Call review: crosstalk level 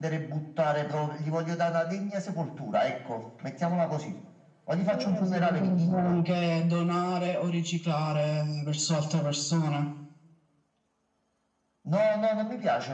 present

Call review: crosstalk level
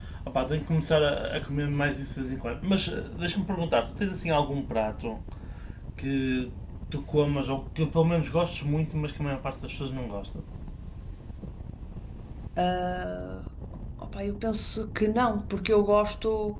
none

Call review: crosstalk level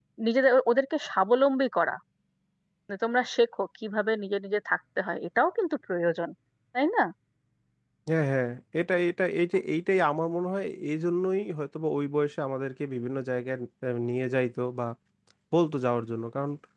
none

